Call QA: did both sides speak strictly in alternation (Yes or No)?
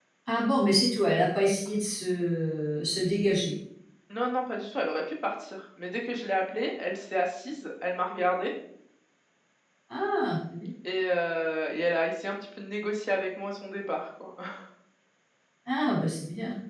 Yes